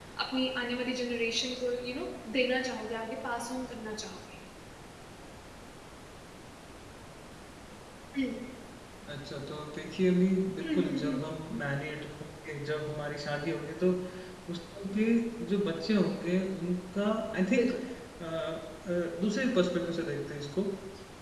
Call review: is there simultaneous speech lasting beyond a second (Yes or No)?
No